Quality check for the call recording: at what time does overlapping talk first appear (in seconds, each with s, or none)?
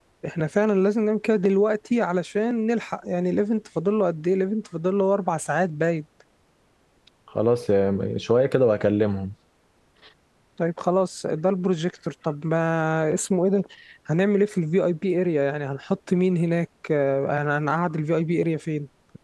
none